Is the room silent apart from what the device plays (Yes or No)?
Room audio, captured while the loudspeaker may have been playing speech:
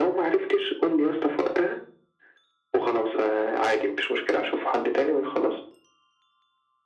Yes